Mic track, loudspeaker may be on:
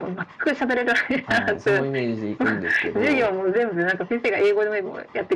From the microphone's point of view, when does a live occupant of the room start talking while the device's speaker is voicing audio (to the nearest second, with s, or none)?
1 s